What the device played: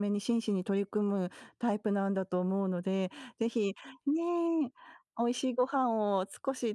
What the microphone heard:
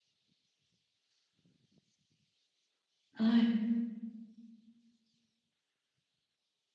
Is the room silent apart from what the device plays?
No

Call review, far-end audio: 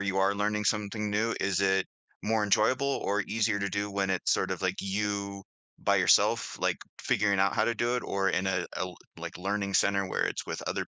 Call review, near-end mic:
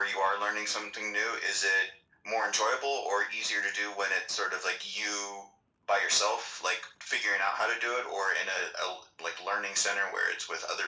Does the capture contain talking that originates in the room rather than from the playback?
No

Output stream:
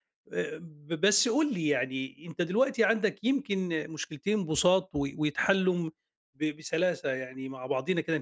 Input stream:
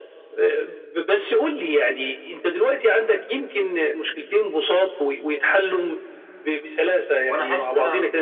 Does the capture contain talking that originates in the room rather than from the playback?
Yes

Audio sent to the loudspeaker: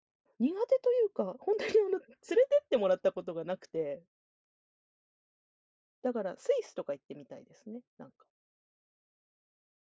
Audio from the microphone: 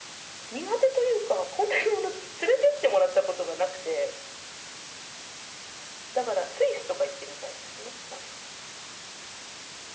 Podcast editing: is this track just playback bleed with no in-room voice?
Yes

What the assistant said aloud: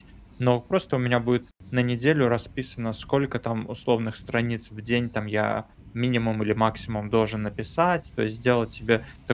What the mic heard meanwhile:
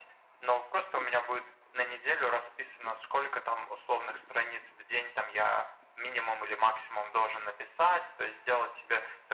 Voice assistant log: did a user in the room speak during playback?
No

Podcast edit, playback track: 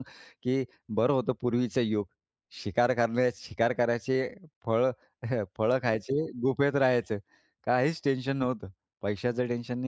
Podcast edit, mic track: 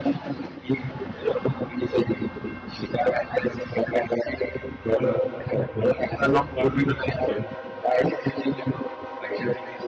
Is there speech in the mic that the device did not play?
Yes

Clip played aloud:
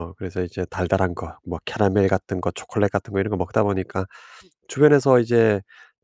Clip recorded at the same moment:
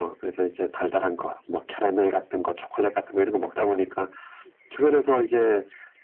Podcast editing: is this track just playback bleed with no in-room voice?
Yes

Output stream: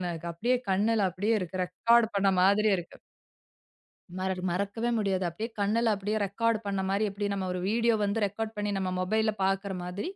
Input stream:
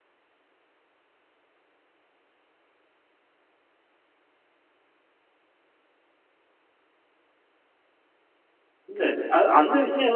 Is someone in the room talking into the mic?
Yes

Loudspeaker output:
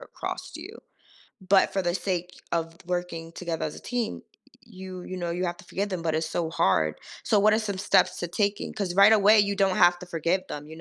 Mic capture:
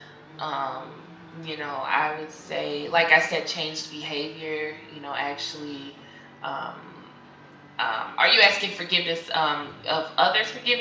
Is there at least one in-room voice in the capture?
Yes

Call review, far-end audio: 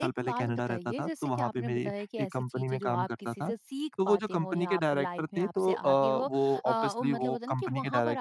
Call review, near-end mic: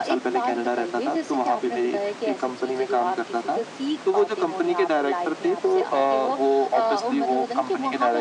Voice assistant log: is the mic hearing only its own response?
Yes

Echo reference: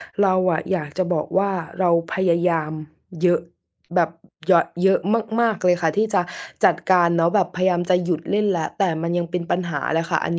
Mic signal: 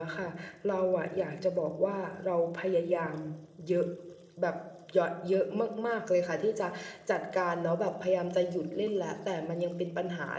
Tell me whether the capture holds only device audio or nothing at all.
Yes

